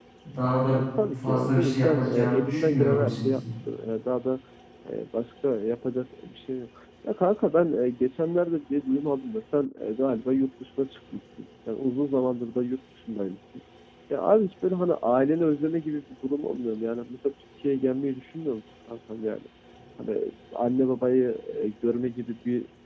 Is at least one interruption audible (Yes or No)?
Yes